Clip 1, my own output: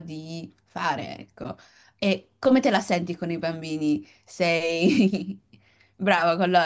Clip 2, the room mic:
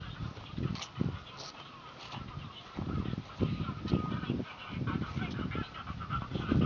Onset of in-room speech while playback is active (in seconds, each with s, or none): none